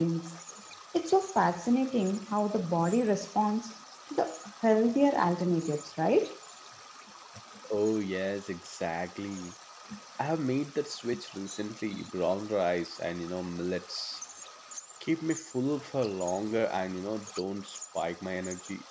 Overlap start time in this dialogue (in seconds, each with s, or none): none